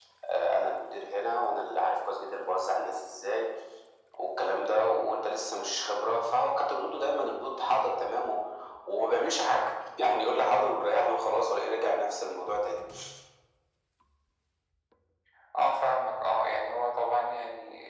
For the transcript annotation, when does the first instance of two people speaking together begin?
none

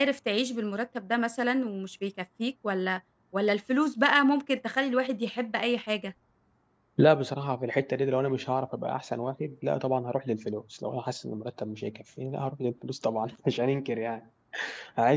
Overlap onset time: none

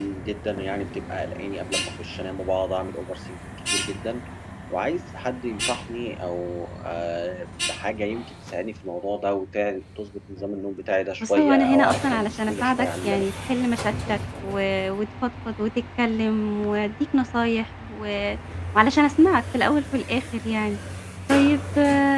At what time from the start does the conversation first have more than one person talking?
11 s

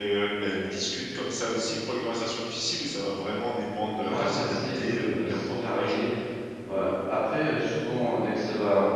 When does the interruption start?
4 s

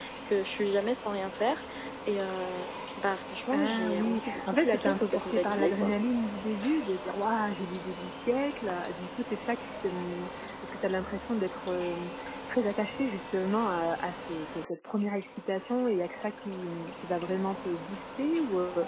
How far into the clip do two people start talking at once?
4 s

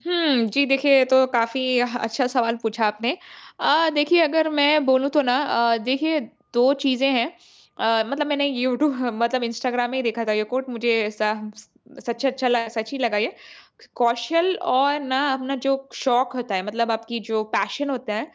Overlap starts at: none

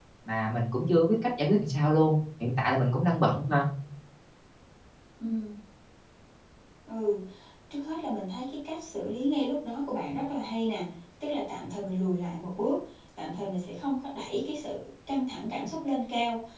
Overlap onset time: none

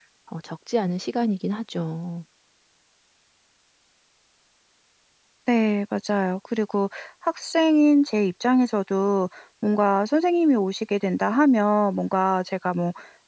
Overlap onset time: none

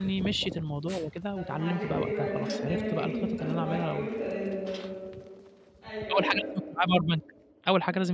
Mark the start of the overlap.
1 s

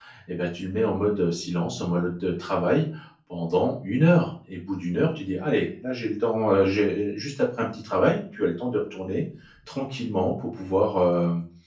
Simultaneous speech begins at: none

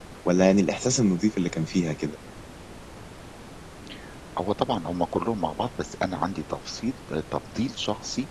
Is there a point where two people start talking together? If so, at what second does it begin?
none

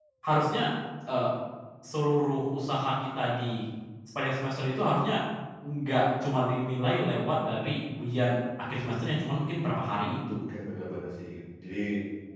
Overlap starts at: none

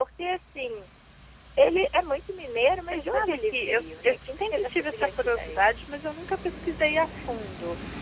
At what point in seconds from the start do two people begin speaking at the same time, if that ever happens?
3 s

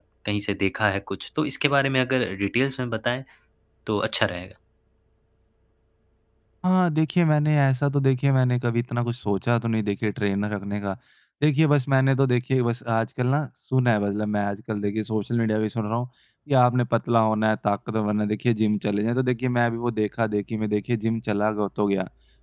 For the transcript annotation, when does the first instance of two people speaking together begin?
none

